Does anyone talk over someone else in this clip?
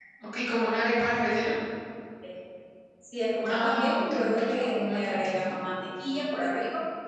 Yes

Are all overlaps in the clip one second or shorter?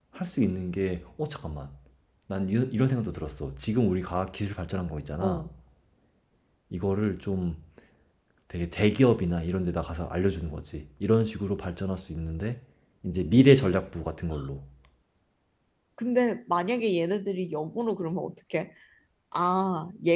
Yes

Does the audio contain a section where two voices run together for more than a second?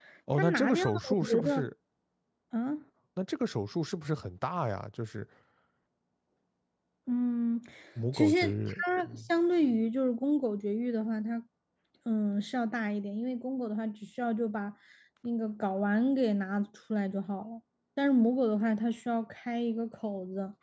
Yes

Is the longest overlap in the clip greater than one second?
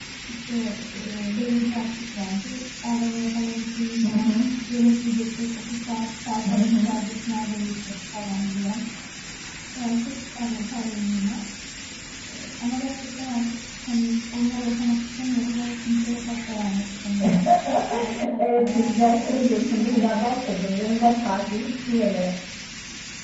Yes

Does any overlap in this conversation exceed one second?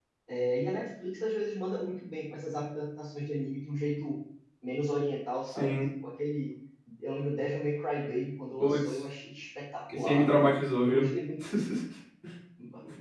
No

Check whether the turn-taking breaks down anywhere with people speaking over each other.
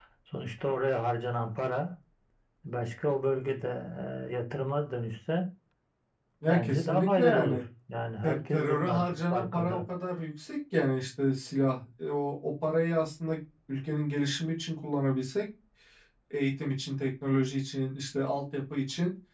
Yes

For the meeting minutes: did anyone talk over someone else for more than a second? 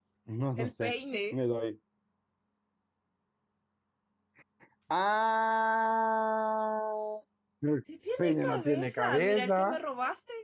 Yes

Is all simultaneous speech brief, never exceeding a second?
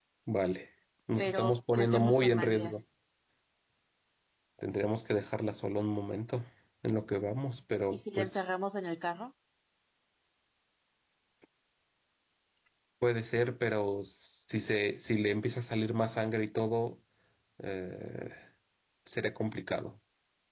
No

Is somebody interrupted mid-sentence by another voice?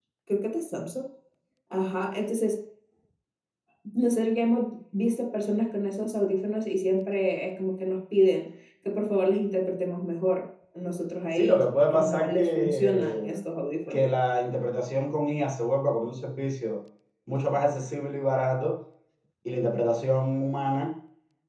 Yes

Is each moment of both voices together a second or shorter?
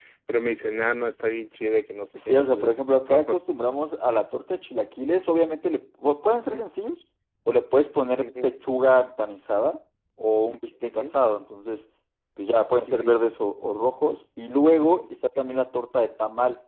Yes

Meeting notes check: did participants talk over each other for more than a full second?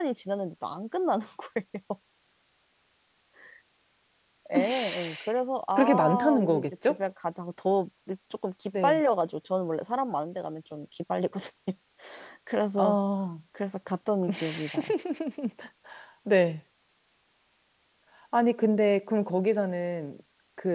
Yes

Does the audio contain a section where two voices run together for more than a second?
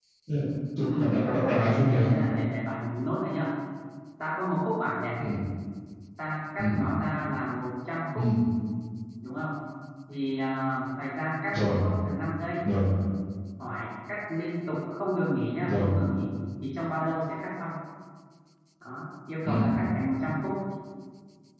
Yes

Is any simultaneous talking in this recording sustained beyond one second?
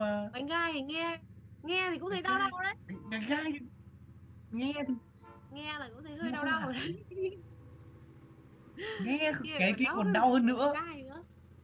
Yes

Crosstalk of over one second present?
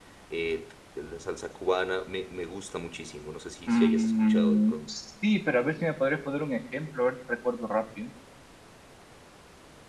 Yes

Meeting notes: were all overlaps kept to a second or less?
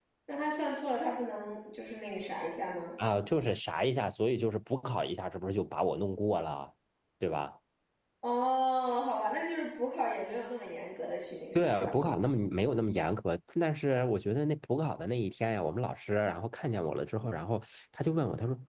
Yes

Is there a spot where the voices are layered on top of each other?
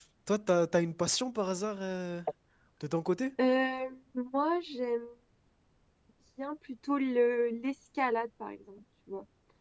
No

